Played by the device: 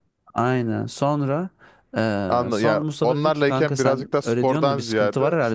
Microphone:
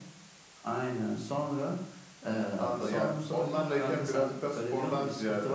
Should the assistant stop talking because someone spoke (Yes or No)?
No